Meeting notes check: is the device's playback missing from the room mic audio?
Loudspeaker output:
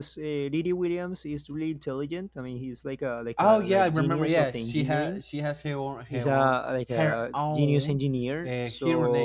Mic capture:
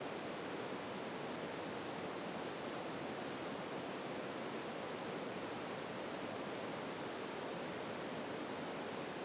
Yes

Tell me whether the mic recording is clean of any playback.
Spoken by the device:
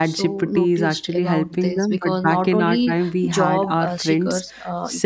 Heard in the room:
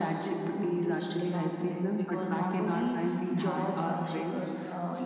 No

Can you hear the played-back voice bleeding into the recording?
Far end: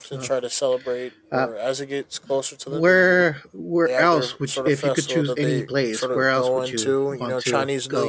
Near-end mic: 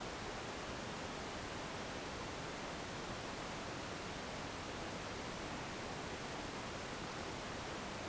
No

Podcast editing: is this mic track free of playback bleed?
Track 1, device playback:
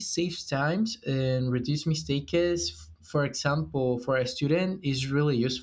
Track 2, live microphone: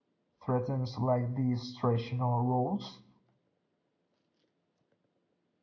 Yes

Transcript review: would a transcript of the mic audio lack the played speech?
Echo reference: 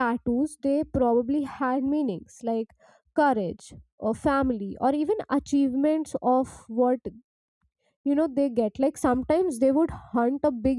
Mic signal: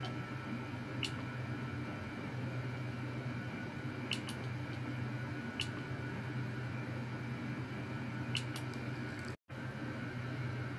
Yes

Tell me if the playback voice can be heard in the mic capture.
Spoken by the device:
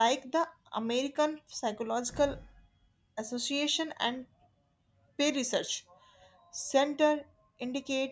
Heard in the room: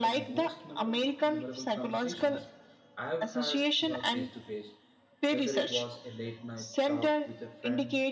Yes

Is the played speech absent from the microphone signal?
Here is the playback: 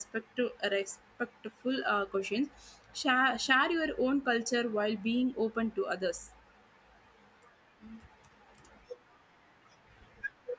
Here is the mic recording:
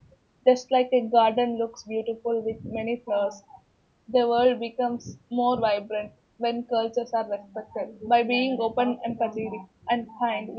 Yes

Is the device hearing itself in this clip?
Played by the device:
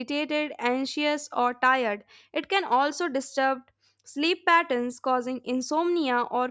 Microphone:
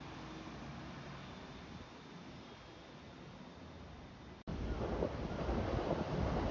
No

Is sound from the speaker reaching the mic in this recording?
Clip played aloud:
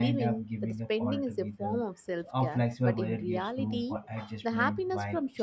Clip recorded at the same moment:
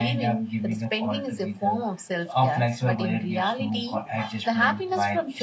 Yes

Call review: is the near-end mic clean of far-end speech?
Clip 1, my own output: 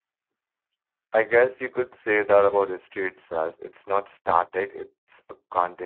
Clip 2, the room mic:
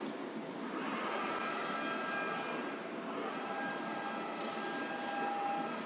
Yes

